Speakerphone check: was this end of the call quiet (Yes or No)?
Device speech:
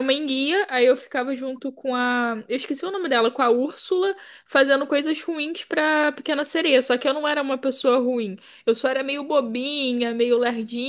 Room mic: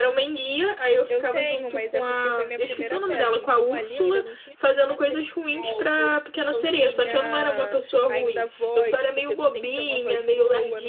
No